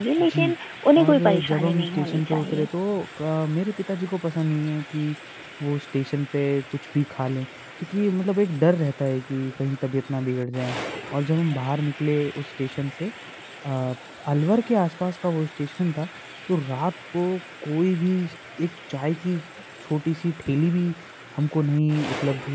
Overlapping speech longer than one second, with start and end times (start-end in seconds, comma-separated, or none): 1.0-2.7